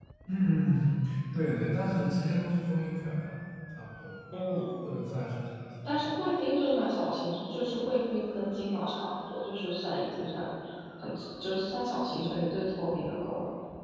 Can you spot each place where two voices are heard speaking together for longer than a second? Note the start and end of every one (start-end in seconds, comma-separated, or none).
none